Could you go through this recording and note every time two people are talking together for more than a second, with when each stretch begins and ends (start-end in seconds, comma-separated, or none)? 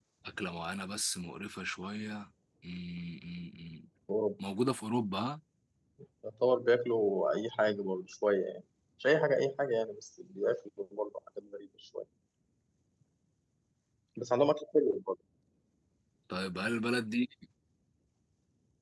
none